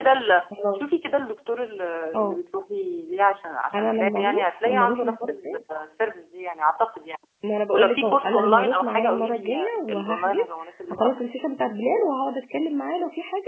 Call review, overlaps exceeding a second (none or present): present